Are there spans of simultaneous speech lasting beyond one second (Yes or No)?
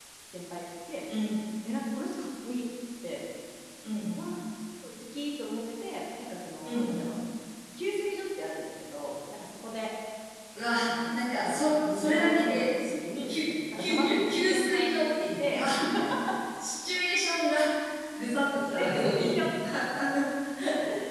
Yes